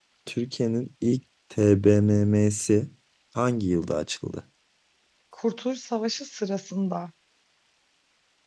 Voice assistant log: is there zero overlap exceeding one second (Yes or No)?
Yes